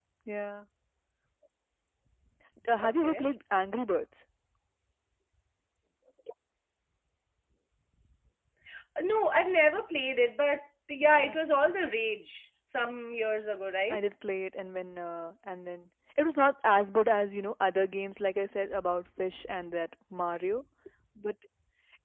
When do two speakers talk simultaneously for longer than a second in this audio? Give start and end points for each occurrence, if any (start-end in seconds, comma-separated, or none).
none